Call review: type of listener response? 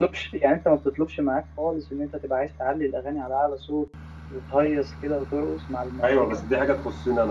taking over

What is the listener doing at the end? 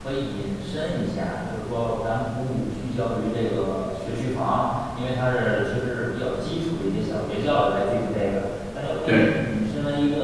listening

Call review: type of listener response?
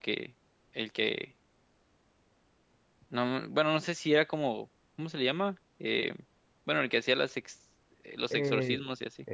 taking over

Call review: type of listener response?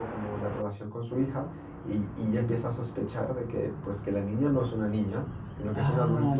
taking over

